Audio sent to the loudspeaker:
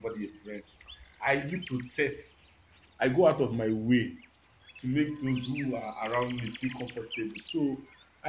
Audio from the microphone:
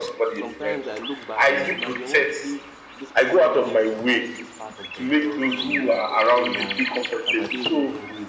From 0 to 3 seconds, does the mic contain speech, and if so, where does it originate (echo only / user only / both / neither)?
both